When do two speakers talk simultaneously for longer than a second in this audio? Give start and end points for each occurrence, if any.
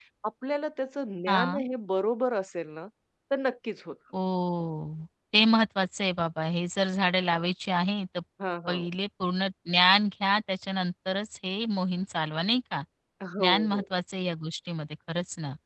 none

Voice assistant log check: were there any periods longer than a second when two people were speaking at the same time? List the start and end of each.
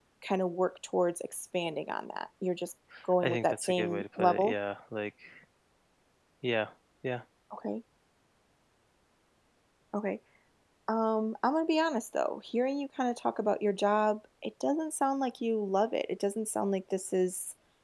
3.2-4.5

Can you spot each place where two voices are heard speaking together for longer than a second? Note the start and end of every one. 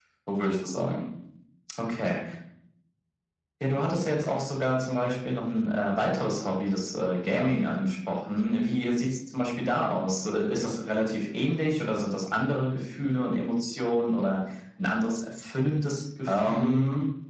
none

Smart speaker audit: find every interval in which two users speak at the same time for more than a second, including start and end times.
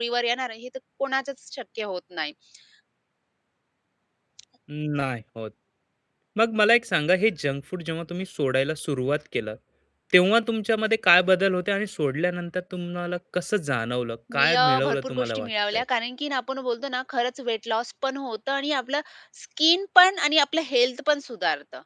14.3-15.8

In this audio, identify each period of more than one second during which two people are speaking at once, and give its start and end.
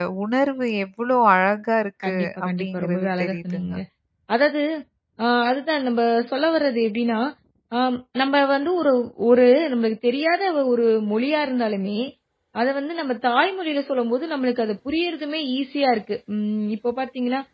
2.0-3.7

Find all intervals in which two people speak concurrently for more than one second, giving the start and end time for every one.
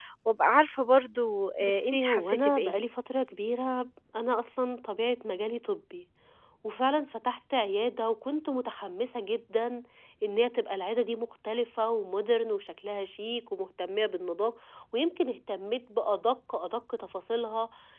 1.6-2.8

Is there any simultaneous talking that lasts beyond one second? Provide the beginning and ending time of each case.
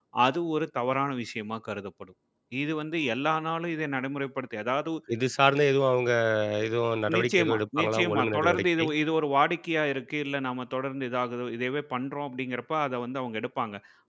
7.2-8.8

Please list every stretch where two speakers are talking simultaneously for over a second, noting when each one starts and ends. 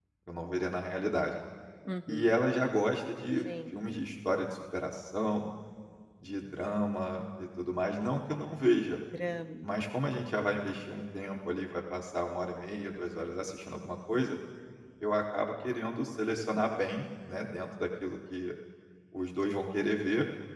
none

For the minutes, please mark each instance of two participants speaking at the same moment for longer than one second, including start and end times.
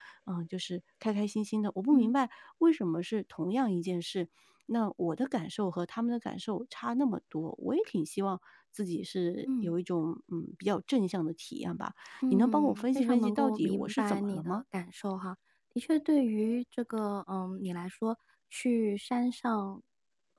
12.3-14.6

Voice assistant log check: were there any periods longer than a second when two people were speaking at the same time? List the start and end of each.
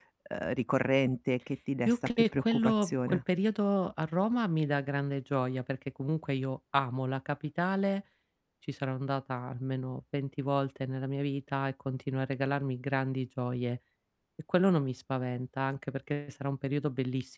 1.9-3.2

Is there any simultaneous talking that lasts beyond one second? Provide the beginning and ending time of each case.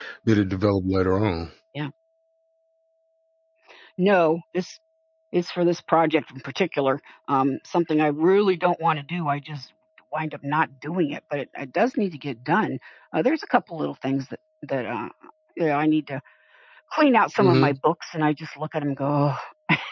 none

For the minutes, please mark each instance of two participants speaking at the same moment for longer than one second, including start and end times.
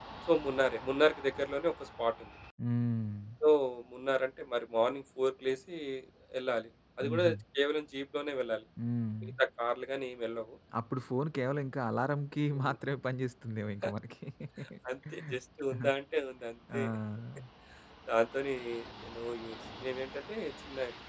none

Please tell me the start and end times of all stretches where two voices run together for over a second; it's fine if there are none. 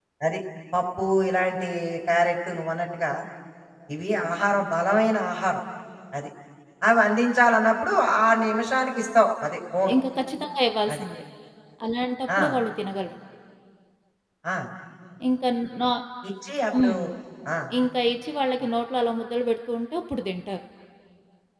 none

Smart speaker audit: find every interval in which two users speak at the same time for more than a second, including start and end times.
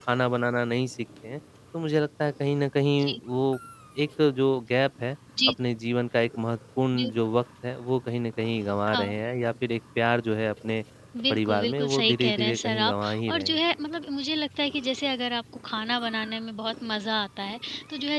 11.3-13.6

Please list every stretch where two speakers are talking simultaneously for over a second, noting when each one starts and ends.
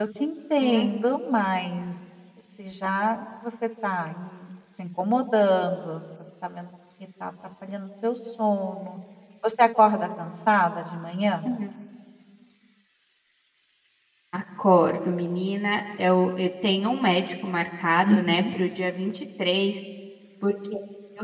none

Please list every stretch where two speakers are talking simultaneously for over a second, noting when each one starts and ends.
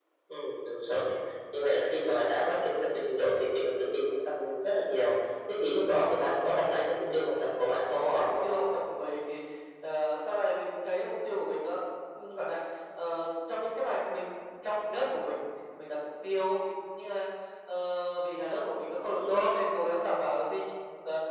6.9-8.4

